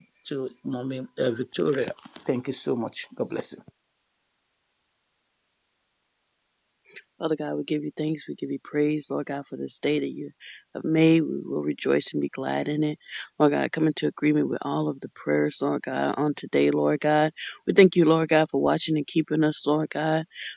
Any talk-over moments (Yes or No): No